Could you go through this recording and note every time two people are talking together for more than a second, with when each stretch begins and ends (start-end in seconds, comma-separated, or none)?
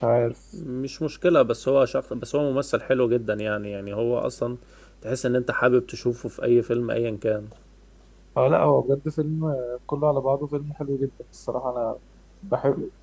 none